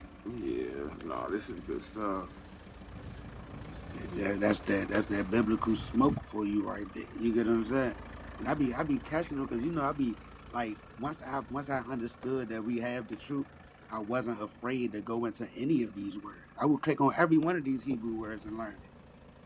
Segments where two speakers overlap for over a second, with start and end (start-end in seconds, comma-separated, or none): none